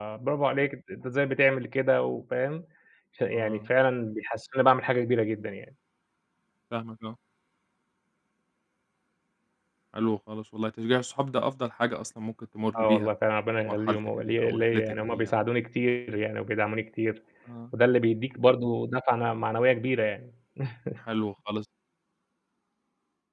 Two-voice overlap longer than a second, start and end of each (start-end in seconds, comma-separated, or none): 13.7-15.3